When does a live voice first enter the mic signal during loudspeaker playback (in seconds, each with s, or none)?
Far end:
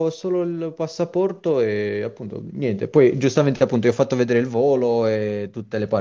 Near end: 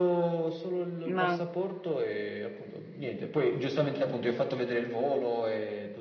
1.1 s